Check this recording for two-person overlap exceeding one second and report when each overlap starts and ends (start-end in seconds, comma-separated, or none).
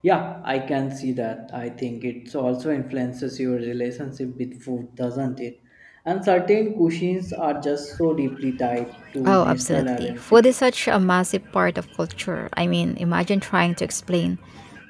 9.2-10.5